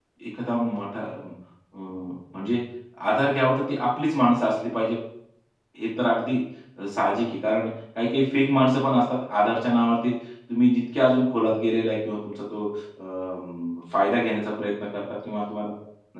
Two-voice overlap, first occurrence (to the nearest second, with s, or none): none